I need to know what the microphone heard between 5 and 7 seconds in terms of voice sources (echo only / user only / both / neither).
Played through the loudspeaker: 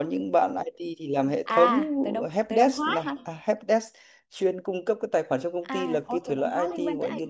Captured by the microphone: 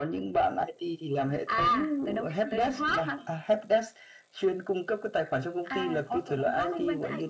echo only